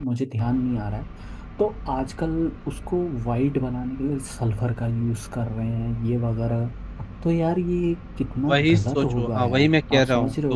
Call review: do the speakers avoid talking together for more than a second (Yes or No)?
No